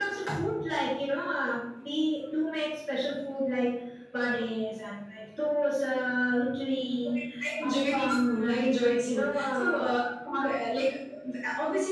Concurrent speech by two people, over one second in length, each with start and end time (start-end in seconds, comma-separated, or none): 7.7-9.9